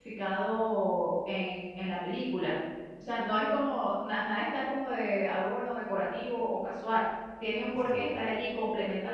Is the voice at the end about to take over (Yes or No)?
No